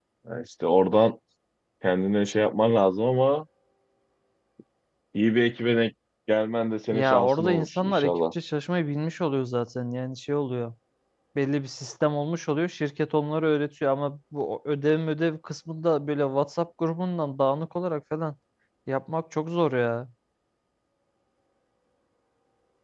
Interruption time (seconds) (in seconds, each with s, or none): 6.9 s